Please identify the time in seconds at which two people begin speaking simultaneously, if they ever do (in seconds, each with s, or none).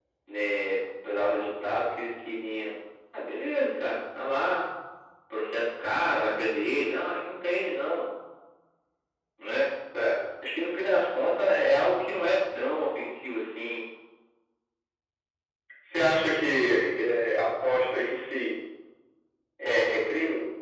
none